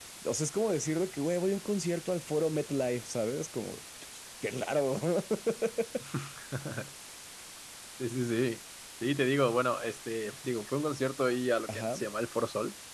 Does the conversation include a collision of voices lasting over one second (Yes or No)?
No